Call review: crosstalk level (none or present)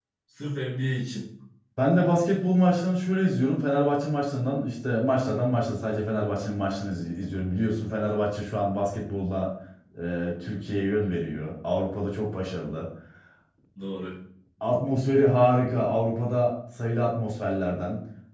none